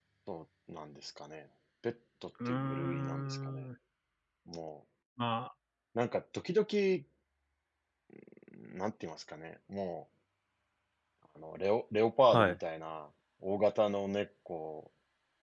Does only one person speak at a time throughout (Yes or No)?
No